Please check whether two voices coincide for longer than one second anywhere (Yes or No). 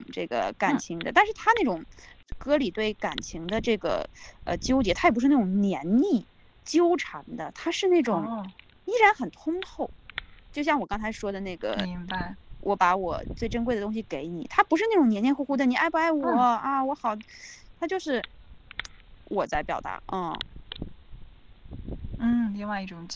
No